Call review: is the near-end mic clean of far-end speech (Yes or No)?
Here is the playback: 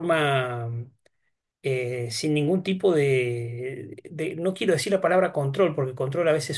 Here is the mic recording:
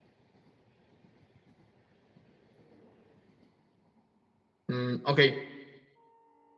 Yes